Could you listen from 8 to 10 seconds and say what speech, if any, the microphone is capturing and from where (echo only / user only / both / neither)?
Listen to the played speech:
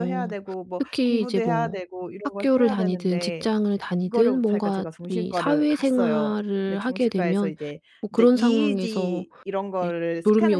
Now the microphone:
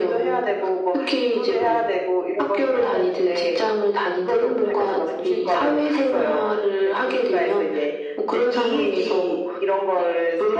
echo only